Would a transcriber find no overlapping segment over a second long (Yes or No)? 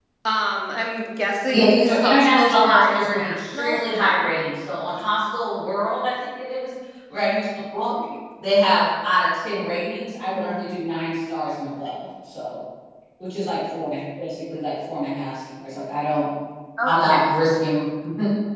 No